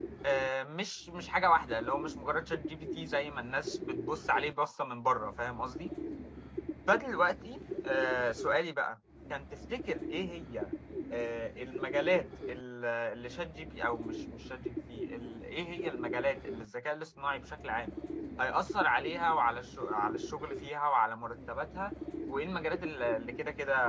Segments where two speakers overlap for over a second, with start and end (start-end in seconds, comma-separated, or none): none